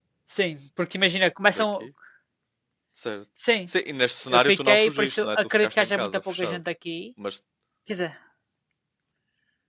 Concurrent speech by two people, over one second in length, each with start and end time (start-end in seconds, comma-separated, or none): 4.3-6.6